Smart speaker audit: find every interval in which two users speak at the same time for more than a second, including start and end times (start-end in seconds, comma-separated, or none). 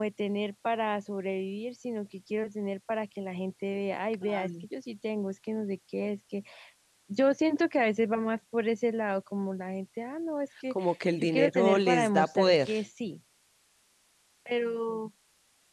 11.2-12.7